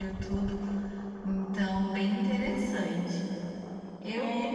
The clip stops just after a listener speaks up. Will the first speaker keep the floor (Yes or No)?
No